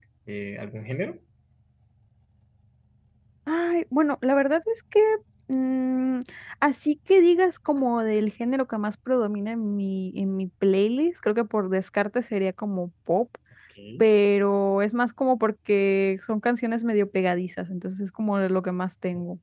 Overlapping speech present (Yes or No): No